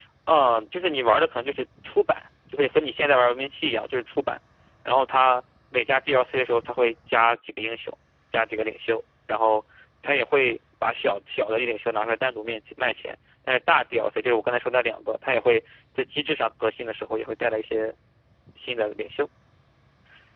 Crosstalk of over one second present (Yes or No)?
No